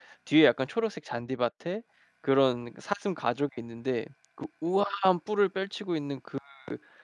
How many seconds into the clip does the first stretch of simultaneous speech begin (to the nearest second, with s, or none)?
none